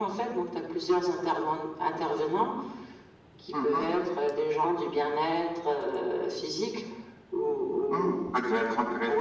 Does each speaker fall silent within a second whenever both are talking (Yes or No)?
Yes